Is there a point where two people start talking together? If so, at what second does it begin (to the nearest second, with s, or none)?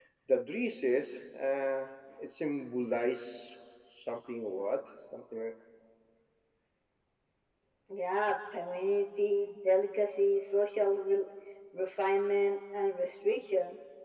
none